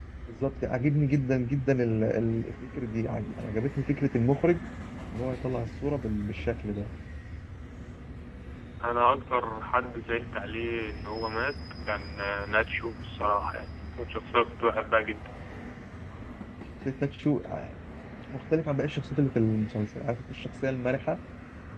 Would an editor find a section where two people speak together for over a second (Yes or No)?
No